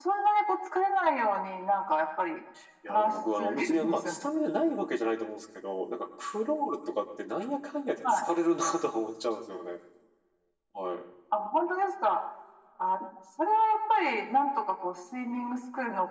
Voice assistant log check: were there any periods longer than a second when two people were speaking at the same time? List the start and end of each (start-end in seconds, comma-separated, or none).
2.9-4.2